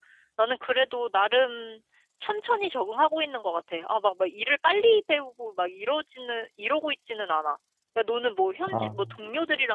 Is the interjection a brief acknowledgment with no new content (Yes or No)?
Yes